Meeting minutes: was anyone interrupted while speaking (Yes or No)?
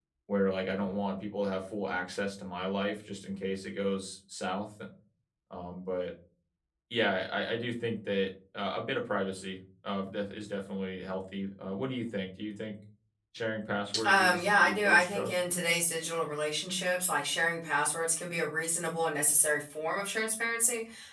Yes